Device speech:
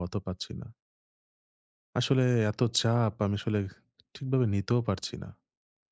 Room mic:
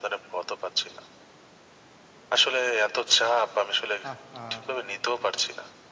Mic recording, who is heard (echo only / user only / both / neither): both